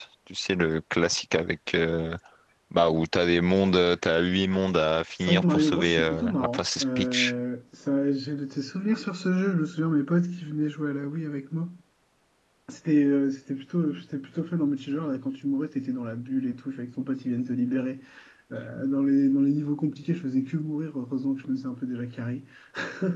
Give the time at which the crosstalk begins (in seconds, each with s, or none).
5.2 s